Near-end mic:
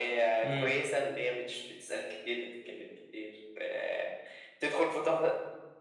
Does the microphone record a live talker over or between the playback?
Yes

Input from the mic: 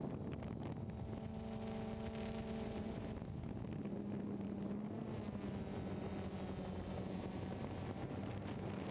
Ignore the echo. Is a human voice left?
No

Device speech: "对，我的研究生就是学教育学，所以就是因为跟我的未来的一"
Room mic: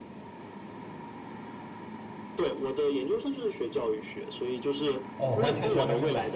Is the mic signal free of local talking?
No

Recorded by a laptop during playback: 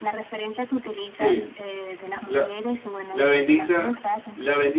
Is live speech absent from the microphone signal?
No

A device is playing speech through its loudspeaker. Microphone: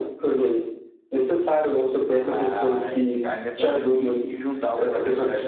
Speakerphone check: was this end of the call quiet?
No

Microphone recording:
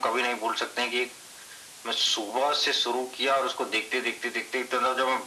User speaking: No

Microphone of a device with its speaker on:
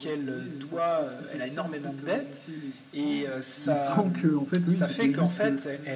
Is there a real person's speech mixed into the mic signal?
Yes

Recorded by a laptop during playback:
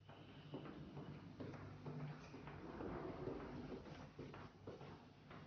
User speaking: No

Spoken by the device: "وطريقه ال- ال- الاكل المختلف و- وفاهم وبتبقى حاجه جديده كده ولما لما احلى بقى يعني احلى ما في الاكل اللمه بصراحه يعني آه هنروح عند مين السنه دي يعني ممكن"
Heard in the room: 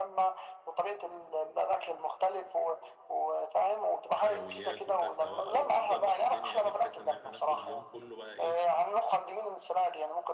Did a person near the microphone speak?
Yes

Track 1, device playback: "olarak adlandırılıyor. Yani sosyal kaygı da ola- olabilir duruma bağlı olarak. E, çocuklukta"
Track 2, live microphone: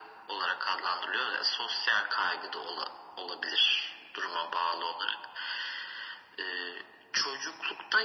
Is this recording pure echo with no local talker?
Yes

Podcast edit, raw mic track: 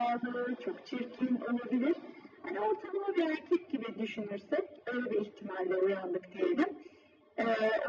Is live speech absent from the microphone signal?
Yes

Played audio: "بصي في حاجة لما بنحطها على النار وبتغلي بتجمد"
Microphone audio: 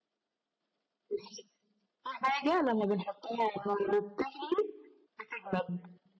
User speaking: No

